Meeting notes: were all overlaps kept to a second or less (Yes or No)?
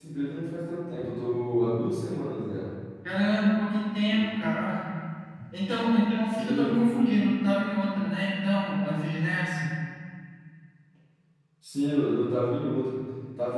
Yes